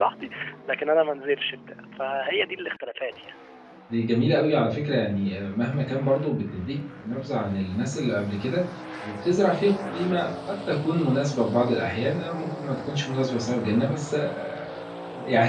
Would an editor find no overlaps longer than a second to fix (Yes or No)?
Yes